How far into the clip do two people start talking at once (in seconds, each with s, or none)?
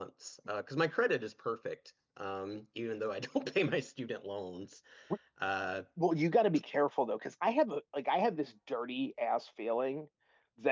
none